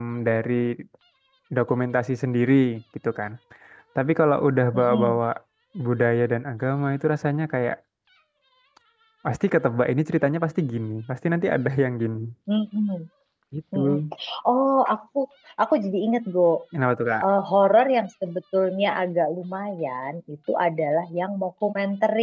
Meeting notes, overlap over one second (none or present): none